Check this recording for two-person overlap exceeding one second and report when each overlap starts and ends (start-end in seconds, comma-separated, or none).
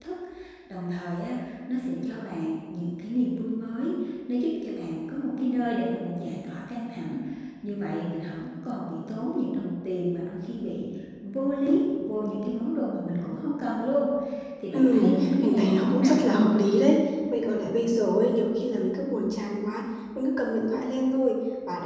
14.7-16.2